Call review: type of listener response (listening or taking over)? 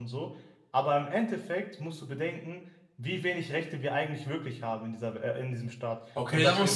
taking over